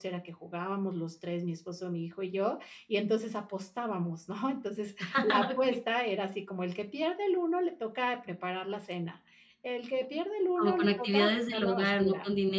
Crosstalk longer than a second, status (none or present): present